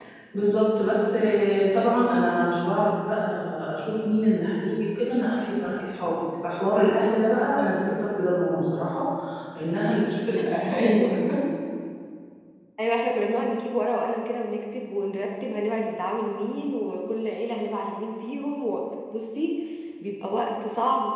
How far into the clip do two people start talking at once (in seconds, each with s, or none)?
none